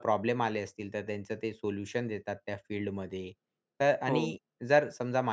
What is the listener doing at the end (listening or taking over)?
listening